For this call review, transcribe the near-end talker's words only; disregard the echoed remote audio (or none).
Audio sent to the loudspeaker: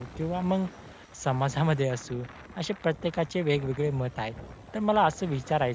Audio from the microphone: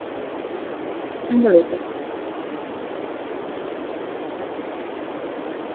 हं, बरोबर.